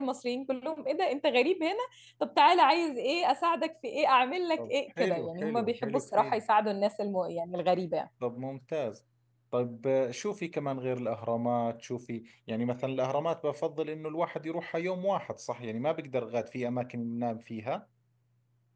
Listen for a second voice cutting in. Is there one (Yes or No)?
Yes